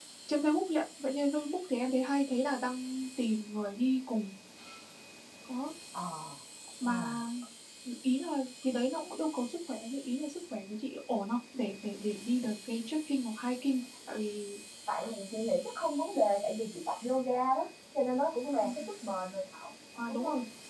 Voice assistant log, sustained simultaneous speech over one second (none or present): none